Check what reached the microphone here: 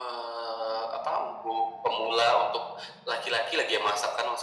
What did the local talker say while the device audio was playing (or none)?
none